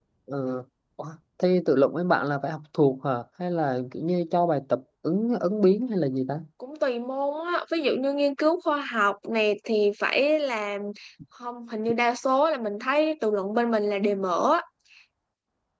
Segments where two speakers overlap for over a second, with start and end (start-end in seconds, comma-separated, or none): none